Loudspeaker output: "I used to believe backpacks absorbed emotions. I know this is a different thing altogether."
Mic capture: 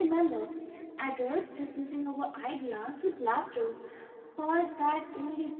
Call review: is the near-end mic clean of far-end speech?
Yes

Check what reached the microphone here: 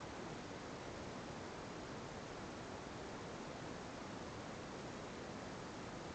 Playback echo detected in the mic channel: No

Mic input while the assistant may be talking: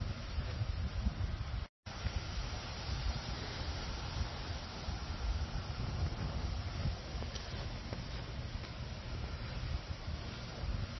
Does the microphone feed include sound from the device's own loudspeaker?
No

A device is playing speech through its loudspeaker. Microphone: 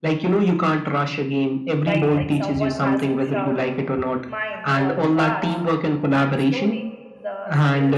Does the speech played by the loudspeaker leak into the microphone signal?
Yes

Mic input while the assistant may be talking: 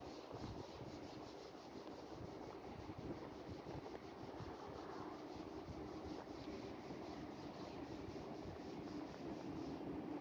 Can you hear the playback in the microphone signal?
No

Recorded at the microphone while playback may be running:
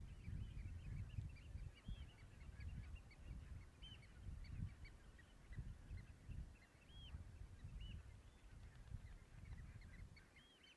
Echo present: No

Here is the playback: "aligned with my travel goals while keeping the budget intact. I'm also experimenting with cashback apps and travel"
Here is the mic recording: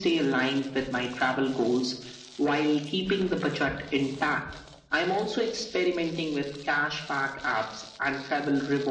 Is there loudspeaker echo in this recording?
Yes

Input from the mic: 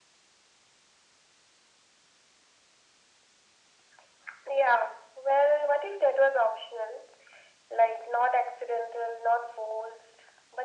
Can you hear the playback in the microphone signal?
Yes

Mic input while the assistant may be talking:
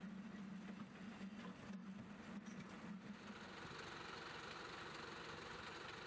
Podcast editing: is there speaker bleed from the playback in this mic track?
No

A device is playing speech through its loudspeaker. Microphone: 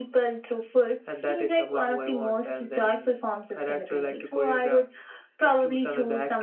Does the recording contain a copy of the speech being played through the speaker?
Yes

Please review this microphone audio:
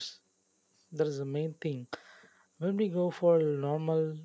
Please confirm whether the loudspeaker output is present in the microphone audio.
No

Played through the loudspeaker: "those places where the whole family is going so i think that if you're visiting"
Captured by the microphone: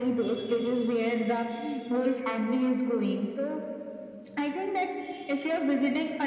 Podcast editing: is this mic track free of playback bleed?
No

